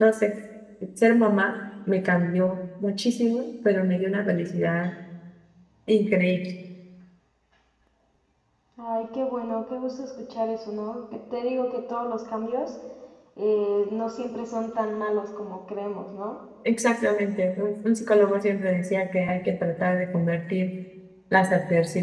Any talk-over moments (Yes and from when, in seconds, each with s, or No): No